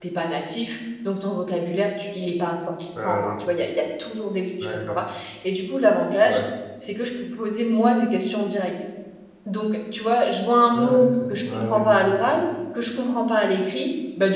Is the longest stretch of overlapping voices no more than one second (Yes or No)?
No